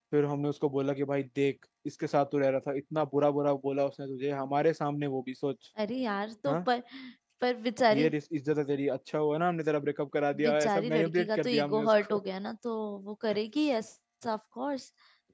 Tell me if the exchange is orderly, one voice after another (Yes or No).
No